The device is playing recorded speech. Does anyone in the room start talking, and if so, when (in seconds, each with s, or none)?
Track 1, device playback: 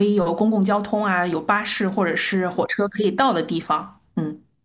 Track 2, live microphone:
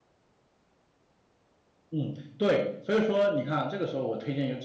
1.9 s